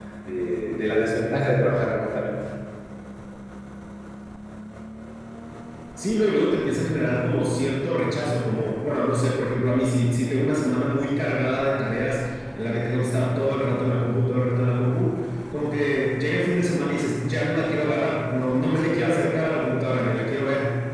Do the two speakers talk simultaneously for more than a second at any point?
No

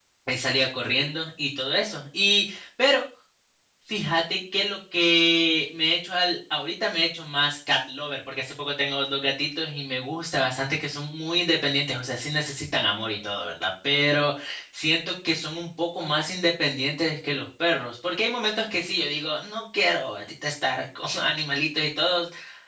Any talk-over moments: No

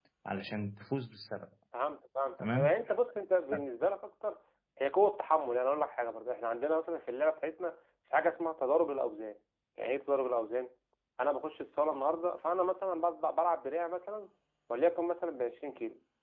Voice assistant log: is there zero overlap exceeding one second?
Yes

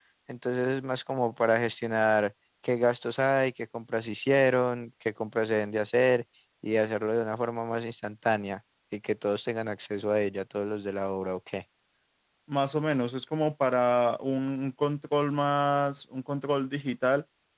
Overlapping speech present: No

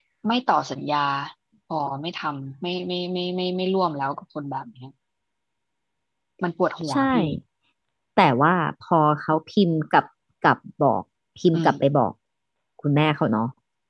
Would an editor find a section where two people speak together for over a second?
No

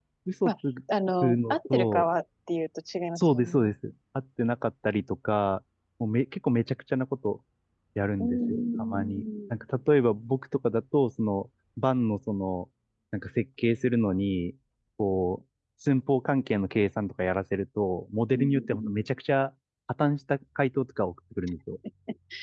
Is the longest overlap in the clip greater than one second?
Yes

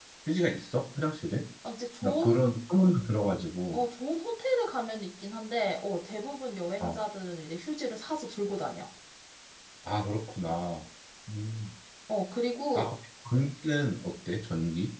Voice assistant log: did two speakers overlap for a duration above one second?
No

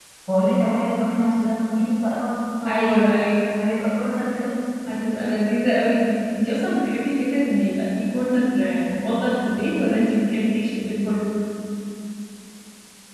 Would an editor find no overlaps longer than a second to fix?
Yes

